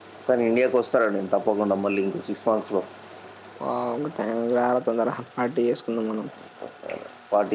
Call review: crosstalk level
none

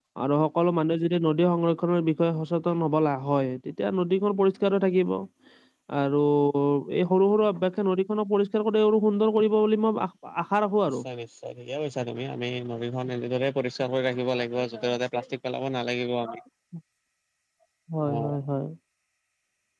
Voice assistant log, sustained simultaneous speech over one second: none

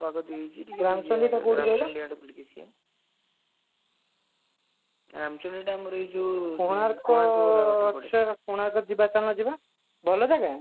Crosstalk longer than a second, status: present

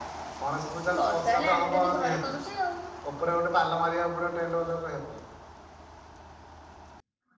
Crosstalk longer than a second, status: present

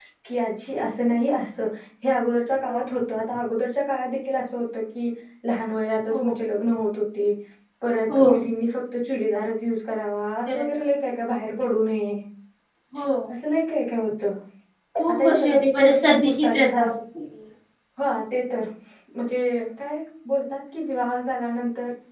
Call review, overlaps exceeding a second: present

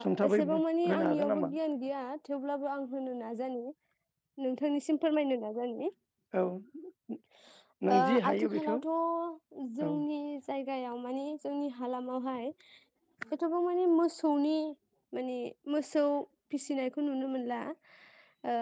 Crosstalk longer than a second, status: present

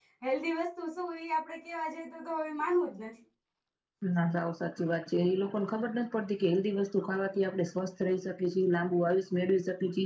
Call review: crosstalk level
none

